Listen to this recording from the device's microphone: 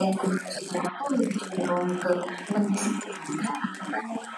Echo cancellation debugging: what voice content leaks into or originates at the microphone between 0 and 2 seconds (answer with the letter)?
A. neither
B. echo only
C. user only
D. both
B